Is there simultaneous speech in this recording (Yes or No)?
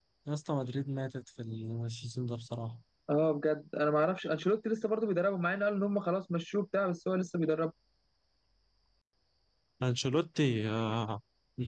No